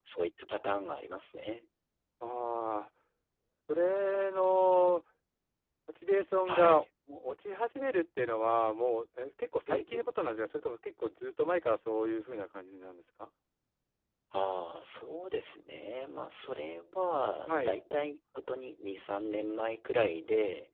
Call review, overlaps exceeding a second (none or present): none